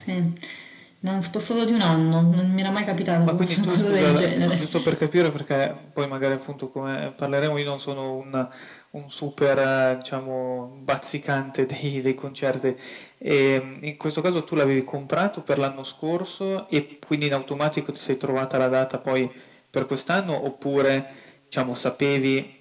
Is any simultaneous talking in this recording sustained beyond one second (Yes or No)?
Yes